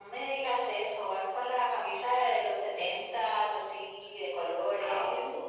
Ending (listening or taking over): taking over